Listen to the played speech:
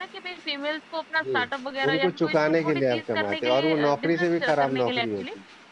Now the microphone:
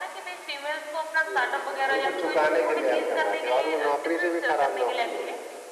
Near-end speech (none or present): none